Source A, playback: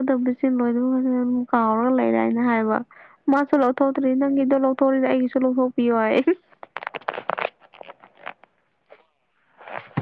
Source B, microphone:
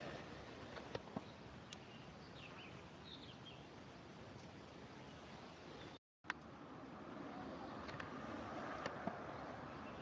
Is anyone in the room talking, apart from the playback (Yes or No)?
No